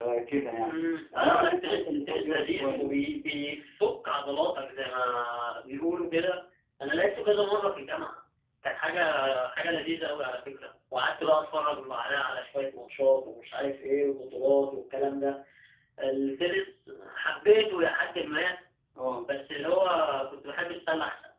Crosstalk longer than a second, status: present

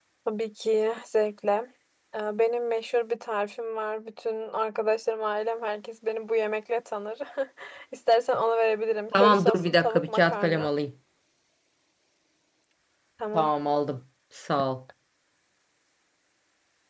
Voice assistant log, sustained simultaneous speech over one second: present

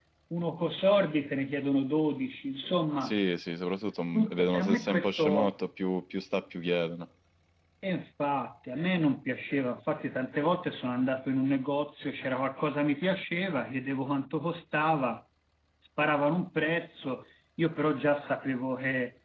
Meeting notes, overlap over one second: present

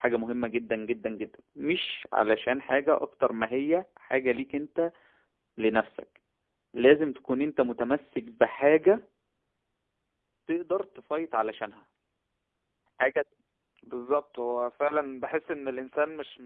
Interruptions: none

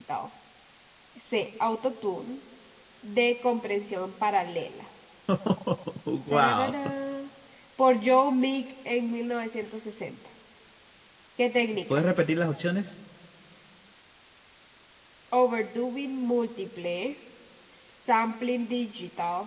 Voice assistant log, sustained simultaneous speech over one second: none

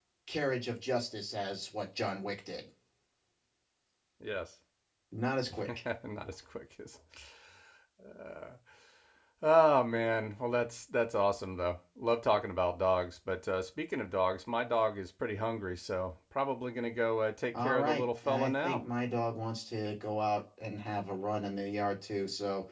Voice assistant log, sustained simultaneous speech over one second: present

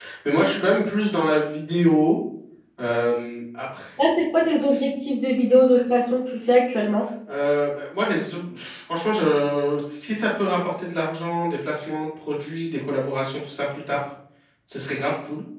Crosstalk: none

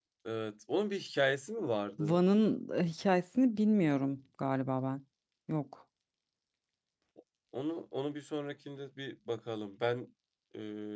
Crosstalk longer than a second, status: none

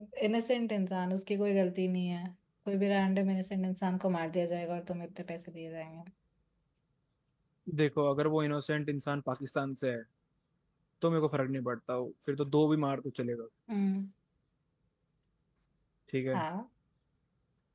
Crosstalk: none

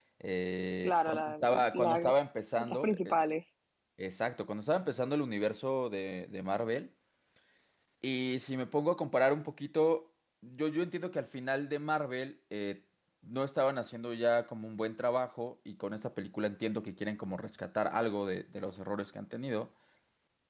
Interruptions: present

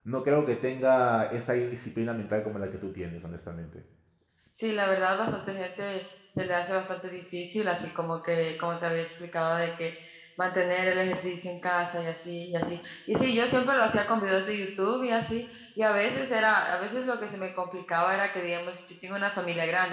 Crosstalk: none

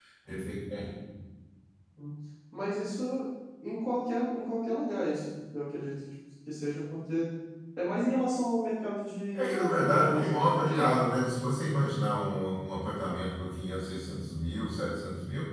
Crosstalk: present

